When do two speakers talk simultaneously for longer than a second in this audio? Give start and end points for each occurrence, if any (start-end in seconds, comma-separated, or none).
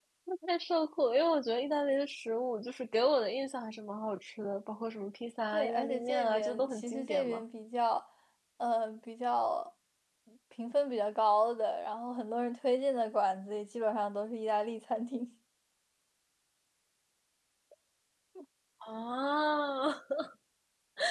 5.5-7.4